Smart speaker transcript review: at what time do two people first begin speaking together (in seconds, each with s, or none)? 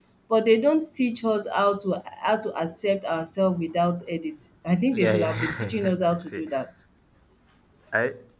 4.9 s